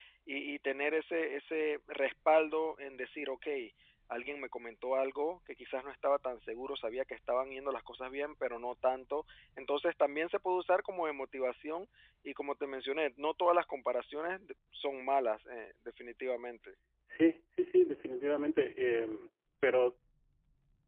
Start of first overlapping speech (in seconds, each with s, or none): none